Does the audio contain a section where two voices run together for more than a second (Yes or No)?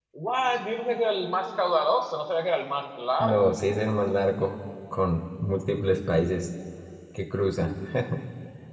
No